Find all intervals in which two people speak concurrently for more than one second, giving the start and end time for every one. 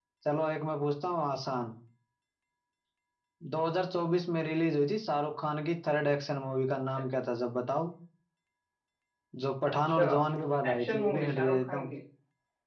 10.7-11.9

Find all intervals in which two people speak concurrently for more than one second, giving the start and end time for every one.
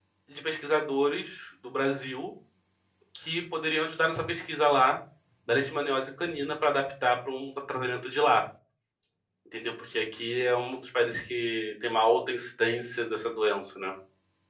none

